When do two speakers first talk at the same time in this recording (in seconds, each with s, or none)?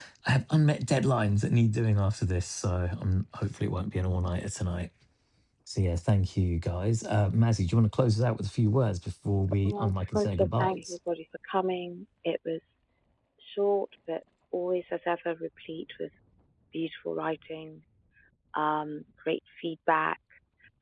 9.6 s